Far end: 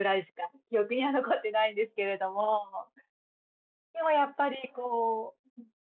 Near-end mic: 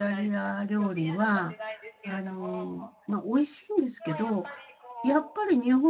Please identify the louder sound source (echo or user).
user